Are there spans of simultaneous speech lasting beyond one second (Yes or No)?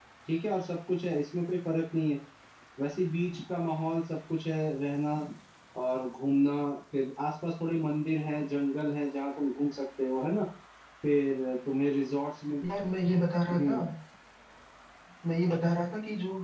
No